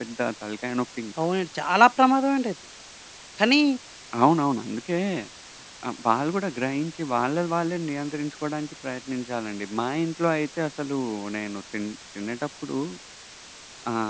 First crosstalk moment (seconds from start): none

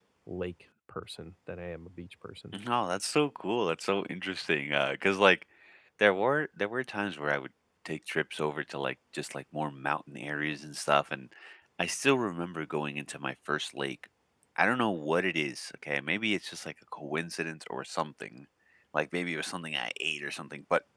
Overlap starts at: none

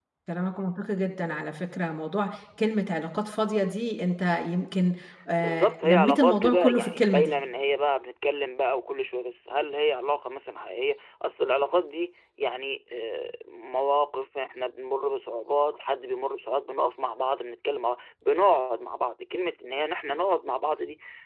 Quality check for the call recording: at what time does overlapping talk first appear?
5.4 s

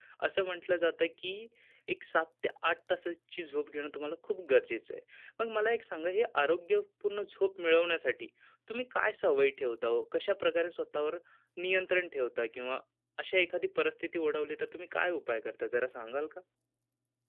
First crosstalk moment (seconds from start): none

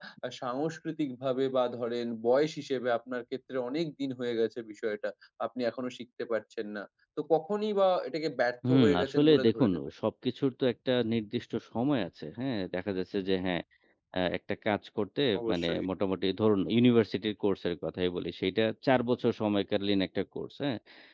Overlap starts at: 8.7 s

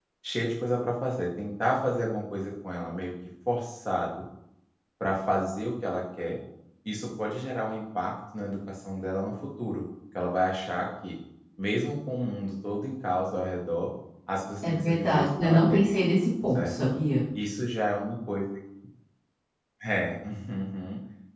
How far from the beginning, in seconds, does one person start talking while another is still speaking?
14.6 s

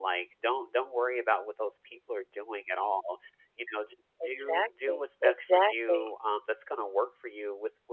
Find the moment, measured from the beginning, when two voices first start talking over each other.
4.2 s

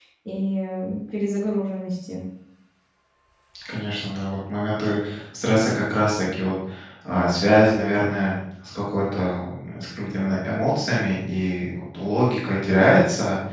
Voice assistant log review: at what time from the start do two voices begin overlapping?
none

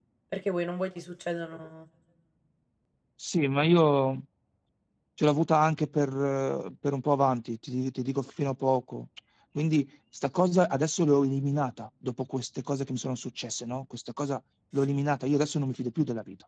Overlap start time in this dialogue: none

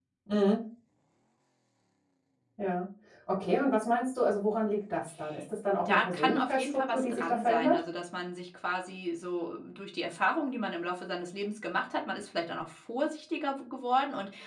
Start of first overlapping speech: 5.8 s

